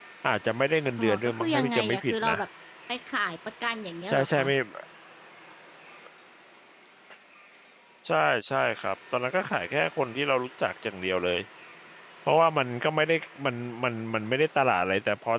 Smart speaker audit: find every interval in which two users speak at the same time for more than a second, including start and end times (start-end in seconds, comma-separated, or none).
1.0-2.4